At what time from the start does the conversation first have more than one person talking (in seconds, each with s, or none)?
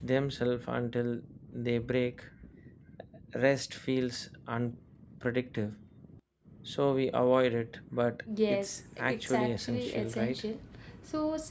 8.3 s